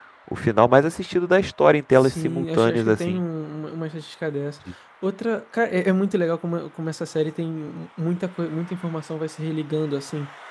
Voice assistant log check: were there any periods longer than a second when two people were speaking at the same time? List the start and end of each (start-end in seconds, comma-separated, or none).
2.0-3.2